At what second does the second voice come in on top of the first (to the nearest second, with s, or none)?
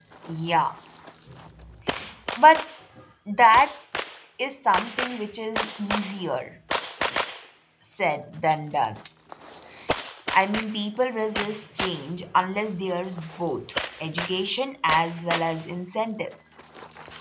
none